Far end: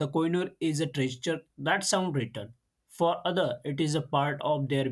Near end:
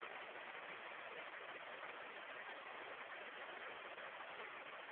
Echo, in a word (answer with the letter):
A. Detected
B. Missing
B